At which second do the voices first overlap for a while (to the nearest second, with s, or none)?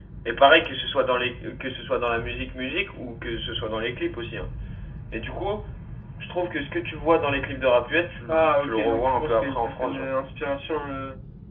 8 s